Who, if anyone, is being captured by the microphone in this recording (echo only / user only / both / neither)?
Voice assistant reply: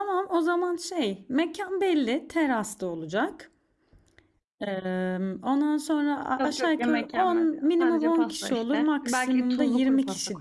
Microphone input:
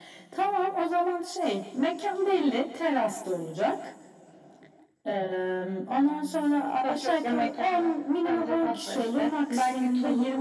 echo only